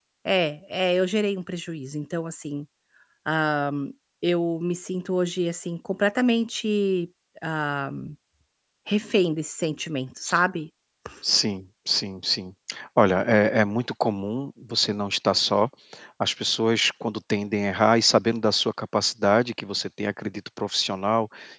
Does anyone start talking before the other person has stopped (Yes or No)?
No